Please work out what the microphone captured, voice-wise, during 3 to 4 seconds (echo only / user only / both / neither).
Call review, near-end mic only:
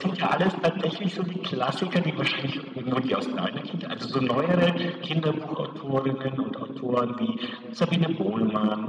echo only